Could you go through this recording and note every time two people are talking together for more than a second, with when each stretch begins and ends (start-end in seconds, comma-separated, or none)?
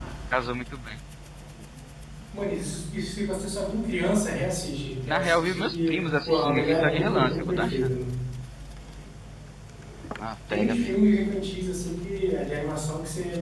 5.1-7.9